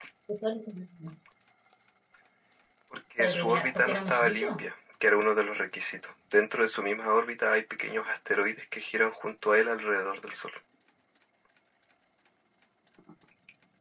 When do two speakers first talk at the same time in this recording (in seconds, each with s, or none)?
3.2 s